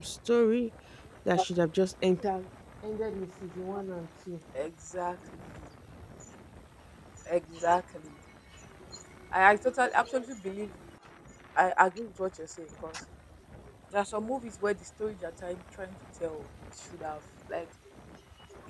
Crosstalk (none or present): none